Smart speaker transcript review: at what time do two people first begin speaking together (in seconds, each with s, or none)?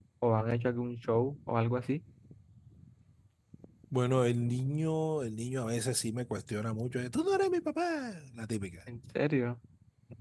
none